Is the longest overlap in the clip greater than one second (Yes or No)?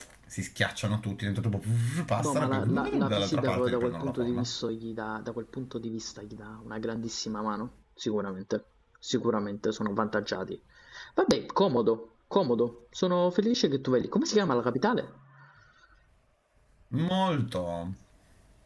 Yes